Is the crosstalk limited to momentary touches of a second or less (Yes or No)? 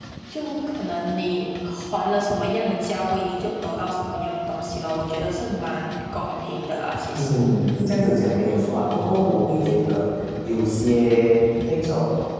Yes